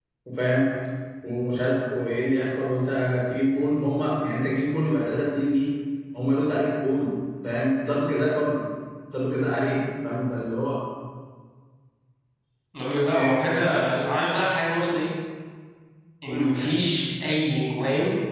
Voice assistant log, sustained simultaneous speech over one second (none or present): none